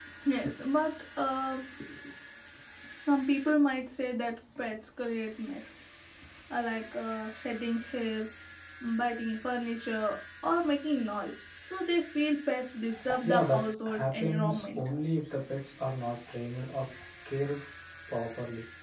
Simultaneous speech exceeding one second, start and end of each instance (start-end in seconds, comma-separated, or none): 13.2-14.8